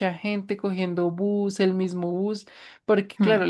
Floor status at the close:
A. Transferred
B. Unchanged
B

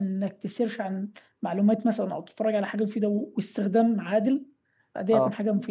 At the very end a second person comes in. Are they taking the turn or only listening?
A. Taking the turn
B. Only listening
B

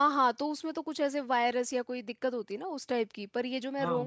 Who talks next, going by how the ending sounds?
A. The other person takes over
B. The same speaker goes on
B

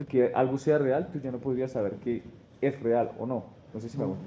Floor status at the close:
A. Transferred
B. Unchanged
A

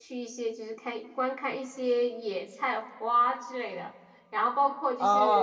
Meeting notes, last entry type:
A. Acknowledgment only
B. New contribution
B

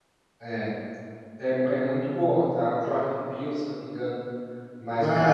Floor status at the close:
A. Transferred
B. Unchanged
A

